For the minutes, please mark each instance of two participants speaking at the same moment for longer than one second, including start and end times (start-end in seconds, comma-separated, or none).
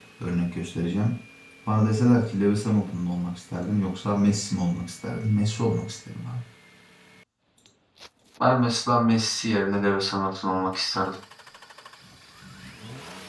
none